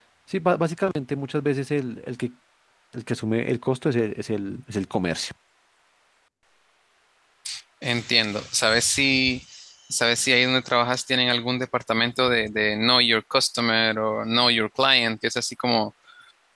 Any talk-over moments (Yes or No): No